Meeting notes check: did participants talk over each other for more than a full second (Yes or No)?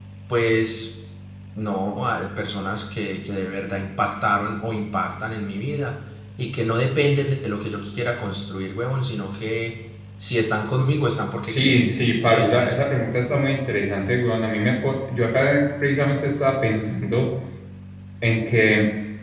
Yes